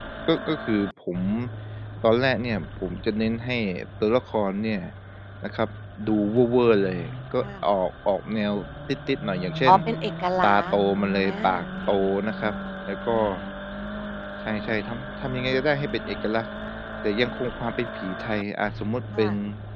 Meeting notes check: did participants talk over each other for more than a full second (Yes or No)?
No